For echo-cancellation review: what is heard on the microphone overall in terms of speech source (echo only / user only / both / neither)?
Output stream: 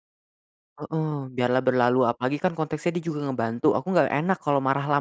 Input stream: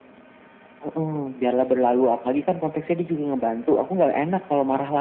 echo only